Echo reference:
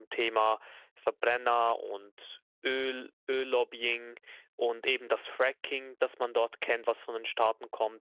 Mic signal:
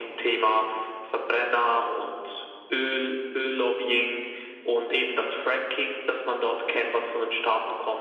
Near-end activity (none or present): none